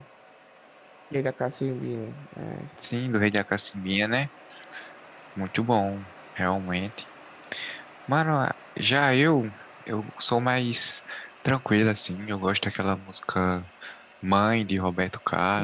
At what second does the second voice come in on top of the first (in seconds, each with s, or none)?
none